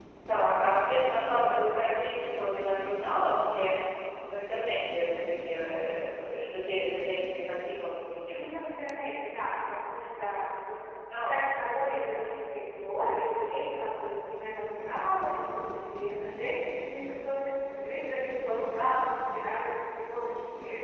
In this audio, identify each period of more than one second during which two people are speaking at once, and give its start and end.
none

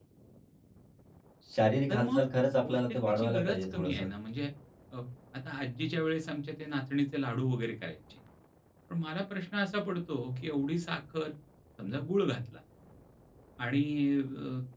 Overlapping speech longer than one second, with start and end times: 2.7-4.1

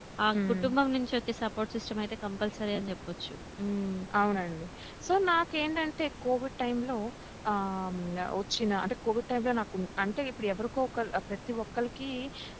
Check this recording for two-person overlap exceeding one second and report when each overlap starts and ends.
none

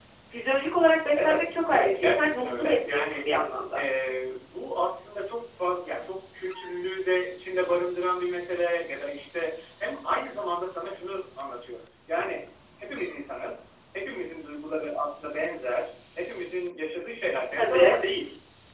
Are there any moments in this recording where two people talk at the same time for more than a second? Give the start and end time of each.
1.1-3.3

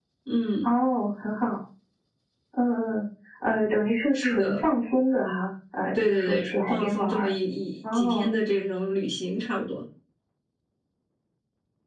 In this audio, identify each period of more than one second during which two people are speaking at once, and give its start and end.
6.0-7.3

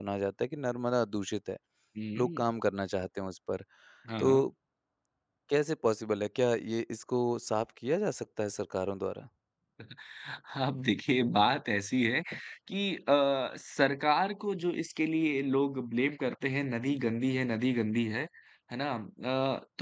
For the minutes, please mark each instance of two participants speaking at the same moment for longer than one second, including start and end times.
none

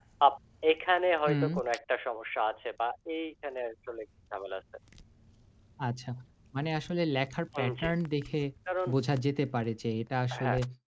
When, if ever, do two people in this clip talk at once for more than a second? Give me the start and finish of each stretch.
none

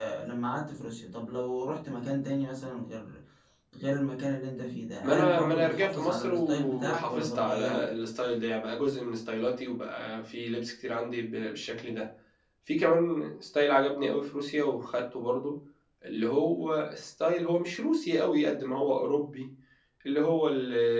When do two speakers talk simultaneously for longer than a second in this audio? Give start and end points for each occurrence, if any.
5.0-7.9

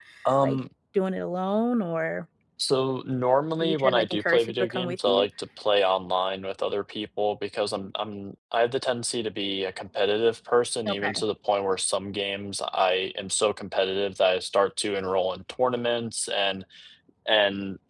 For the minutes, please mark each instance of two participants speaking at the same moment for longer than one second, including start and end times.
3.6-5.2

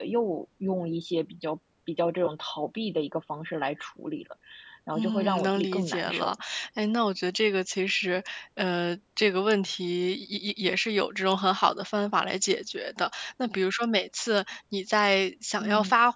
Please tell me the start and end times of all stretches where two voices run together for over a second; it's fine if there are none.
5.0-6.3

